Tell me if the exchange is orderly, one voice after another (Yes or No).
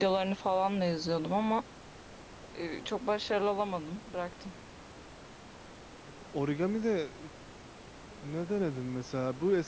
Yes